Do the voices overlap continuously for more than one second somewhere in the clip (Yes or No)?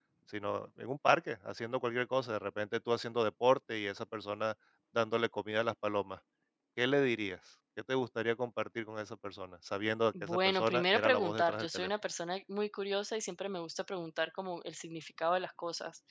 Yes